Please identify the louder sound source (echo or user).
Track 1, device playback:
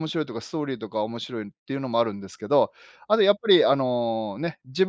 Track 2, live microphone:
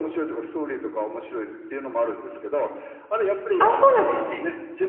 user